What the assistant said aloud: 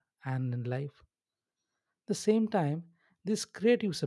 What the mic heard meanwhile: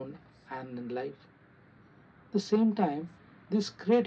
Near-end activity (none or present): none